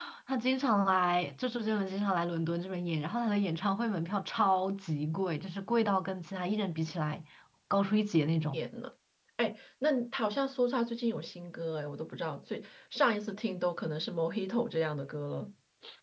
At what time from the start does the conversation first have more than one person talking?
none

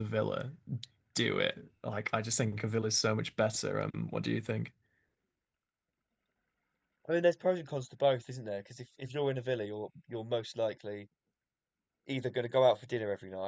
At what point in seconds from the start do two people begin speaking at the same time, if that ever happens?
none

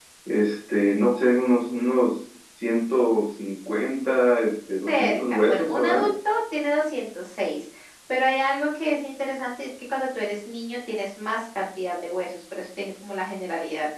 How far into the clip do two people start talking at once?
4.9 s

